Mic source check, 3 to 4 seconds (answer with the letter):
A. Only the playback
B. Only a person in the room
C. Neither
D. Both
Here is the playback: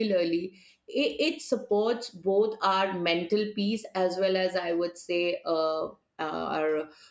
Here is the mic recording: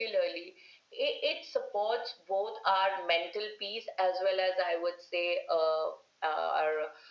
A